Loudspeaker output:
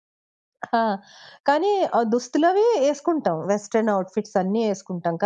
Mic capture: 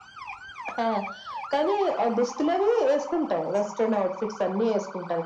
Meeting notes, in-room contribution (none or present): none